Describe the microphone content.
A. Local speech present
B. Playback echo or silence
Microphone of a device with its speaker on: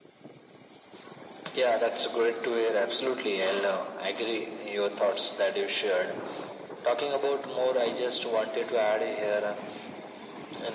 B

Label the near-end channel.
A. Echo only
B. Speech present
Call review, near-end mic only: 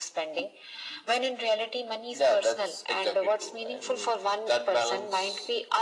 A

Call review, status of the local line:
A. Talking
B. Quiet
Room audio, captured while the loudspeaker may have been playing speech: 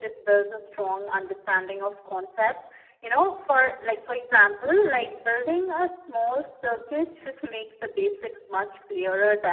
B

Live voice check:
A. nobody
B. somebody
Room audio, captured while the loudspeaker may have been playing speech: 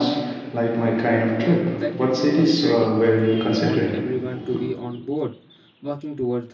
B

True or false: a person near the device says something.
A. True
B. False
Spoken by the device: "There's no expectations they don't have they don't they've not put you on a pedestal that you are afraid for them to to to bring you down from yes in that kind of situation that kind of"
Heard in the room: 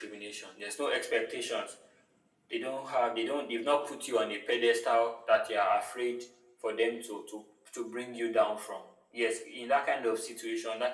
B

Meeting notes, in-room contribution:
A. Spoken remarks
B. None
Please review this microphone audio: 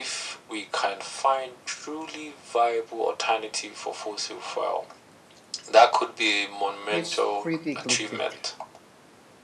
A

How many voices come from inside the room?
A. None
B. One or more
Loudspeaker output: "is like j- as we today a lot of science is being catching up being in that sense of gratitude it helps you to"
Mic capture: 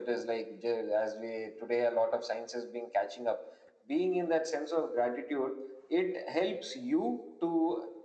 A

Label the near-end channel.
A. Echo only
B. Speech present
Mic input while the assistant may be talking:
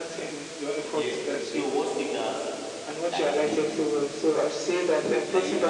B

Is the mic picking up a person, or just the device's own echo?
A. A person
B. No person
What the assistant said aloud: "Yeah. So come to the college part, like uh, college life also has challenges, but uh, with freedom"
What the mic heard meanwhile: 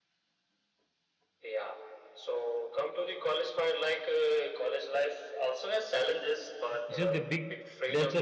A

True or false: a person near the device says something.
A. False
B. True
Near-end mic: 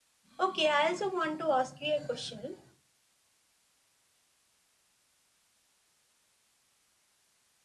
B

